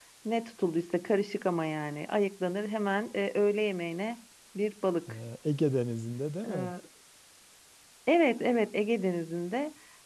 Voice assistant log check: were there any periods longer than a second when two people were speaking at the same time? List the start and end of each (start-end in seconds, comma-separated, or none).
none